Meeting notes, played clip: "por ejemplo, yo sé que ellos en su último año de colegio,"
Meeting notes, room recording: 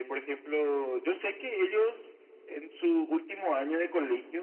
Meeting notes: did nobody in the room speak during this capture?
Yes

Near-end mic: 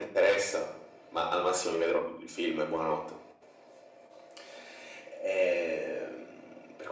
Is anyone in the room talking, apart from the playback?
No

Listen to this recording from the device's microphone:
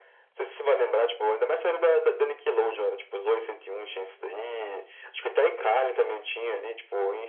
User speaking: No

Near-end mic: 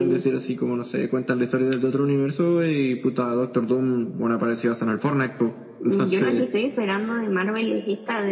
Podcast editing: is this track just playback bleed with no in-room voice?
Yes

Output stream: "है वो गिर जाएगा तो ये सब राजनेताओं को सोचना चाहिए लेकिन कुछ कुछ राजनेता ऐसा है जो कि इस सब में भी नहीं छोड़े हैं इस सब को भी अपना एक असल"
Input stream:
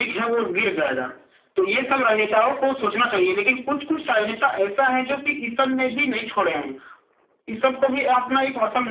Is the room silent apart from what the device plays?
Yes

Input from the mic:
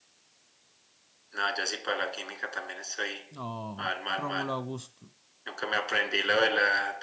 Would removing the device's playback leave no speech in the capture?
No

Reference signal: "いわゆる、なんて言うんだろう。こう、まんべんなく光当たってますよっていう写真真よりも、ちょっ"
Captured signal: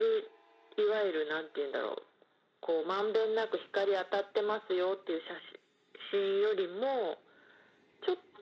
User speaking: No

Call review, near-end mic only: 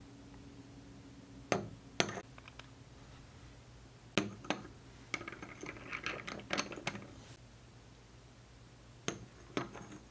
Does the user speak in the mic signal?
No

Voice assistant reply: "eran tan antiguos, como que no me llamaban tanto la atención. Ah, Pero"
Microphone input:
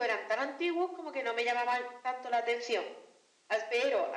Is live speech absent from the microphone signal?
Yes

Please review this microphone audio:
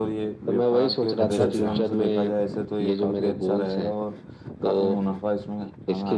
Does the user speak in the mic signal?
Yes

